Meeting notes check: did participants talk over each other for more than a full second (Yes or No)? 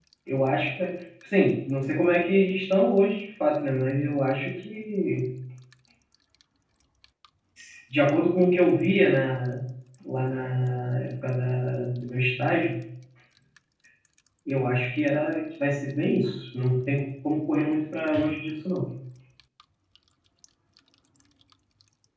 No